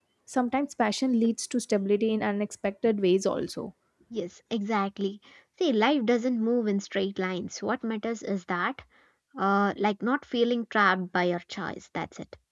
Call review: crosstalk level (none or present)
none